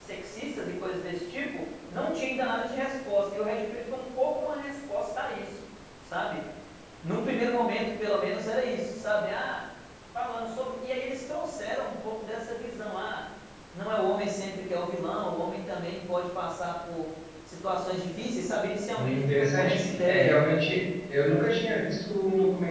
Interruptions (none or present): present